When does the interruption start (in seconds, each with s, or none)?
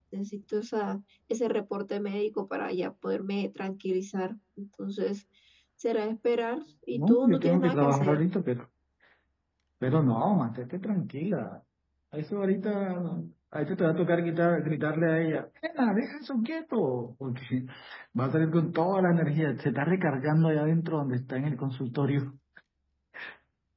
6.9 s